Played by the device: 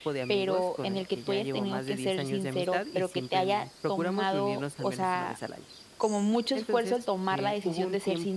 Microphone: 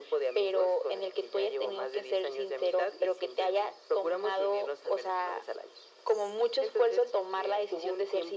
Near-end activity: none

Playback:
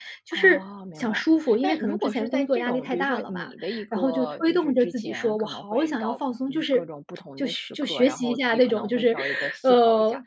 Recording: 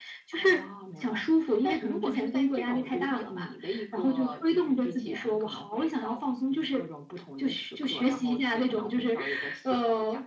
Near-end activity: none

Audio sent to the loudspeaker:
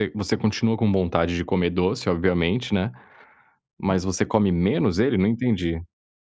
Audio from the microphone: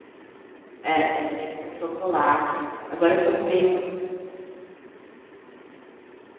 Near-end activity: present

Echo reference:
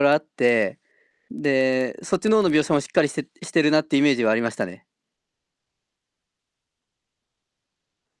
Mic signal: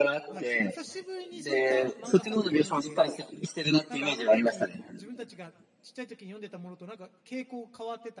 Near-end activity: present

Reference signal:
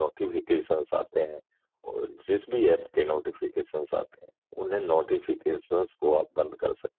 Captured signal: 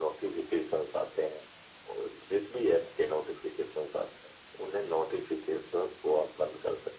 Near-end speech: none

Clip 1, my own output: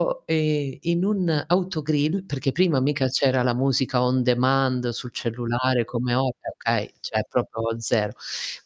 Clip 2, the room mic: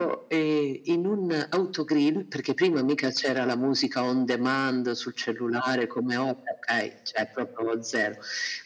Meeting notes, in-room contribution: none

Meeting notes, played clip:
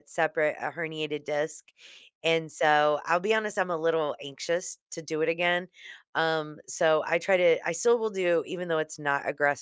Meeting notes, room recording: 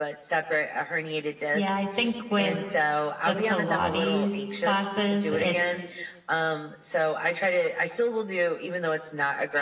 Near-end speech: present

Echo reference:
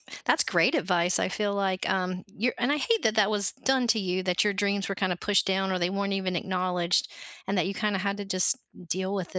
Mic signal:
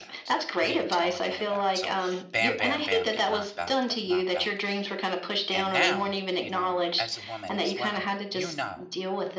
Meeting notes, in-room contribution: present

